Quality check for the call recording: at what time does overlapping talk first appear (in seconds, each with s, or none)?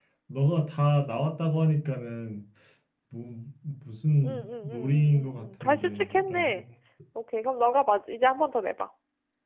4.2 s